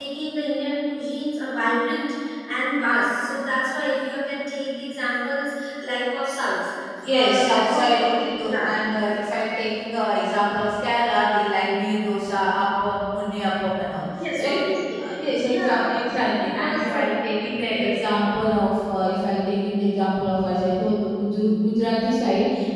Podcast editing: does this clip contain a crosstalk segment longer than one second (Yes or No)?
Yes